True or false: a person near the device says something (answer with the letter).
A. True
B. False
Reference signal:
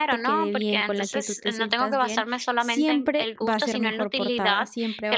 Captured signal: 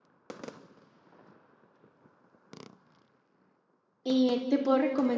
A